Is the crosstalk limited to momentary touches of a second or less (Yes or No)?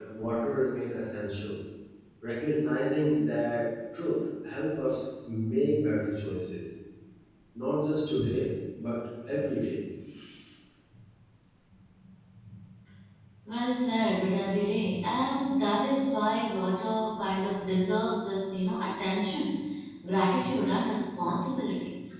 Yes